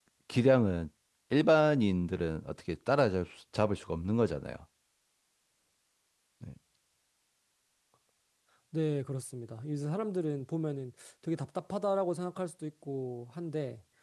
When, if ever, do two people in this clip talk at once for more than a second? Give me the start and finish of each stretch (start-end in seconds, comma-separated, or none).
none